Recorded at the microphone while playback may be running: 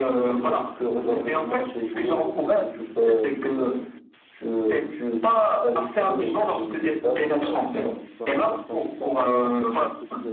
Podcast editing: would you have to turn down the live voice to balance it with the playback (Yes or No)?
No